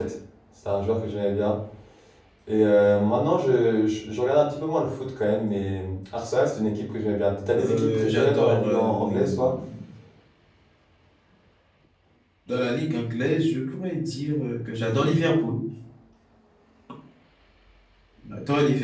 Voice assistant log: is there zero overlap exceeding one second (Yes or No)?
No